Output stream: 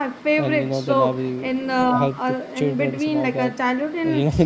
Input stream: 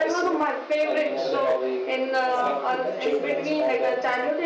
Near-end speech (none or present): present